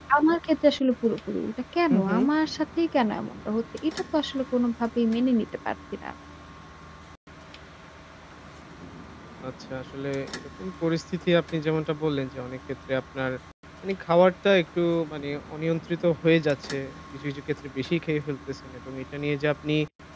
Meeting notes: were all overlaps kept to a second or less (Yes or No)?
Yes